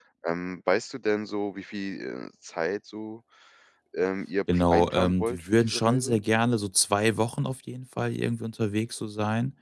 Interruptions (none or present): present